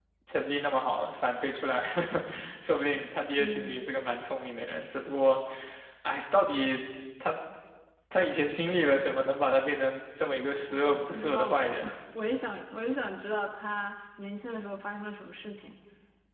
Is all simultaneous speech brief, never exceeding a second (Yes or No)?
No